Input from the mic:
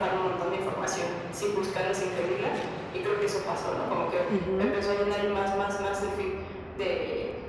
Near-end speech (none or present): present